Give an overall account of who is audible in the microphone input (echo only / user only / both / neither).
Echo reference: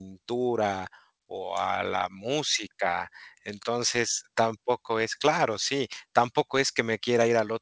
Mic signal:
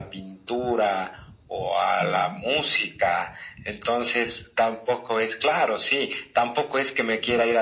both